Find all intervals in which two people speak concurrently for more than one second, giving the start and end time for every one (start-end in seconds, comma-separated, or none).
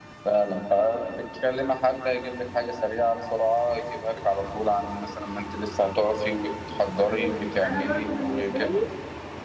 7.1-8.8